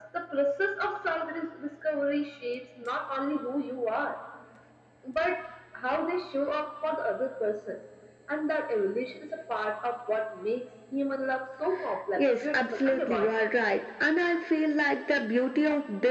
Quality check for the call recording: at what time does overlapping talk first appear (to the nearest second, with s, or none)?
12 s